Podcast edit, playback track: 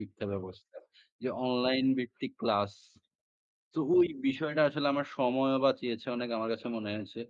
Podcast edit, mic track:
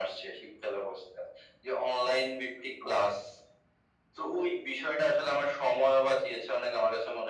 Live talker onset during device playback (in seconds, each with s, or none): none